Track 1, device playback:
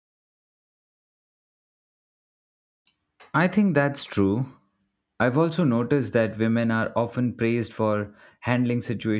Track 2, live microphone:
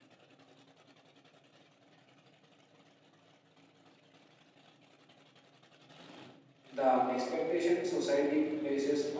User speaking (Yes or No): Yes